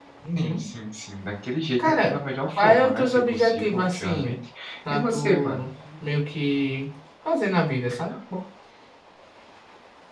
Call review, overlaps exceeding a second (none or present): present